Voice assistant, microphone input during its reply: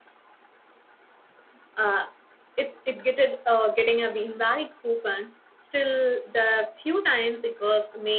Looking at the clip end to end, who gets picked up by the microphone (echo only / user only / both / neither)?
user only